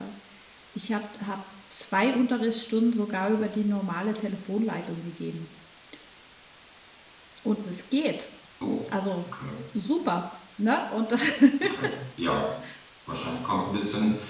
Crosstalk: none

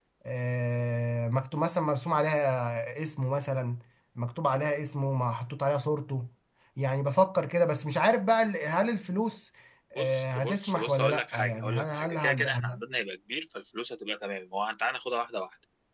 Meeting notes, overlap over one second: present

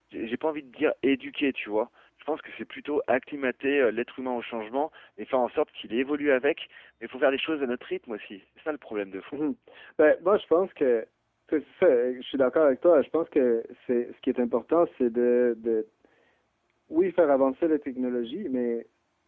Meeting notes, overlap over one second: none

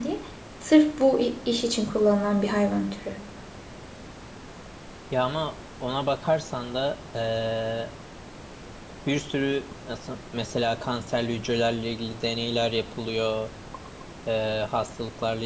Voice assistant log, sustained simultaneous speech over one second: none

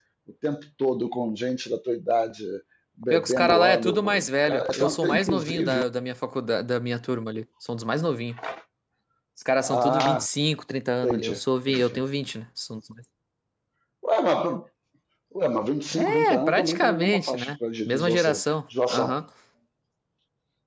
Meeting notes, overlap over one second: present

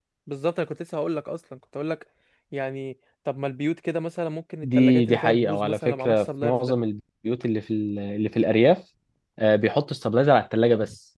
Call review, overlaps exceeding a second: present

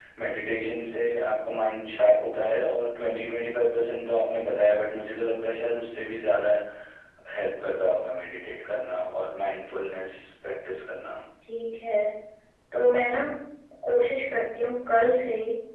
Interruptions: none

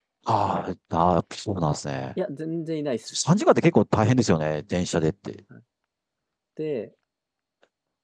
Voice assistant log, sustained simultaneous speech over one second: none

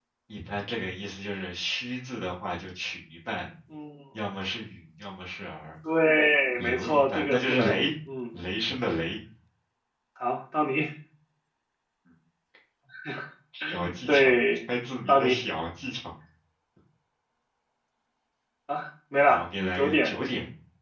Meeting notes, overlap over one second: present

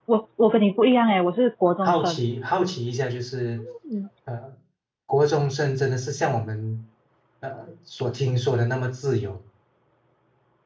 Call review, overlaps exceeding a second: none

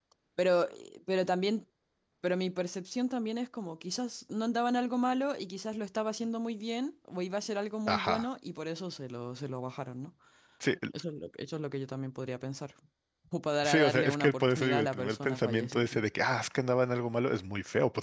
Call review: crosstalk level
present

